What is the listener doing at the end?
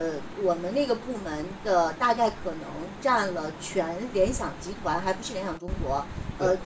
listening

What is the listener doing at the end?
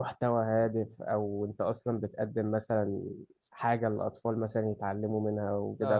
listening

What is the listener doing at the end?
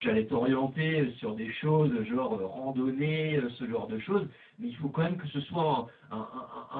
listening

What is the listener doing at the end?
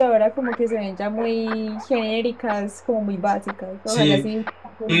taking over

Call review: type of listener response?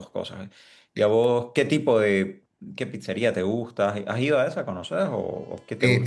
taking over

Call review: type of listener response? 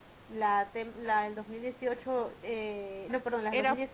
listening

